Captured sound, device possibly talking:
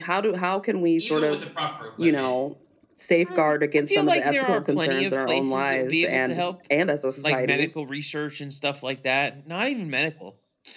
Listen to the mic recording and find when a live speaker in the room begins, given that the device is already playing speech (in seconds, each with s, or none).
1.0 s